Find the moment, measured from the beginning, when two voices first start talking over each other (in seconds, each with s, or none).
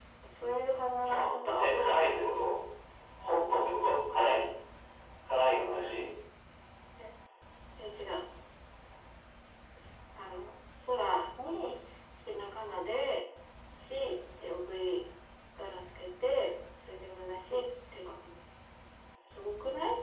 1.0 s